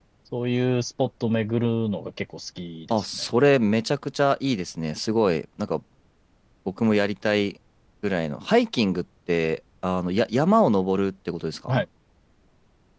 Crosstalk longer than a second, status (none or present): none